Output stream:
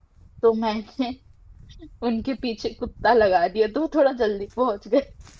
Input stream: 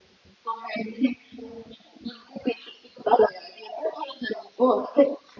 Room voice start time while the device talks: none

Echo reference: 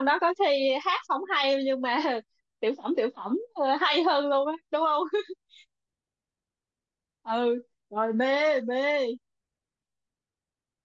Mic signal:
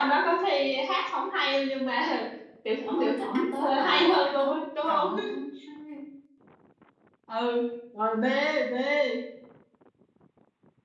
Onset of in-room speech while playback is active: 2.9 s

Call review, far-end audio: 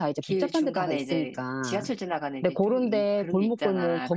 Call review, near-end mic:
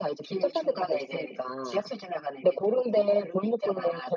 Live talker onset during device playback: none

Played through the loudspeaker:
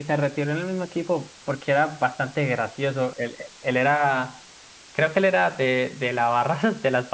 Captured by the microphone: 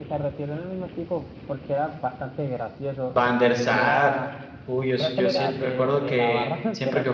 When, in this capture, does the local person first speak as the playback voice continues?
3.2 s

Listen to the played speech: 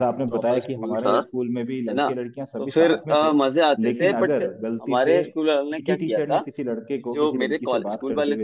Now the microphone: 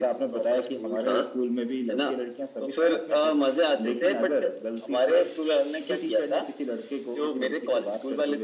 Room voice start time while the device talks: none

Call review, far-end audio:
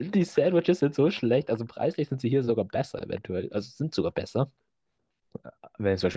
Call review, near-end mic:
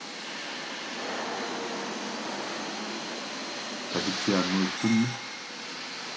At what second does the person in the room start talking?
3.9 s

